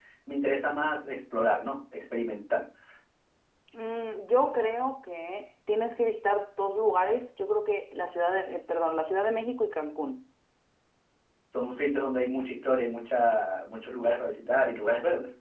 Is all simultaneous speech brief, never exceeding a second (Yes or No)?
Yes